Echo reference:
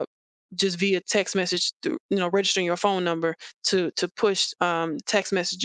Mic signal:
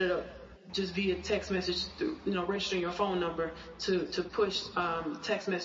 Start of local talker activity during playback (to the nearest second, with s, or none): none